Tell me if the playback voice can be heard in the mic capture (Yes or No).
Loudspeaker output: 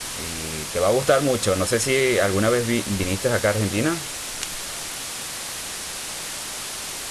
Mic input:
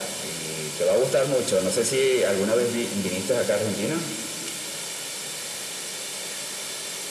Yes